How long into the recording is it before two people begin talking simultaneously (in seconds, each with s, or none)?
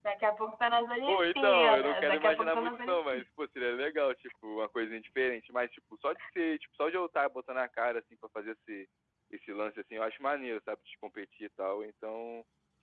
1.1 s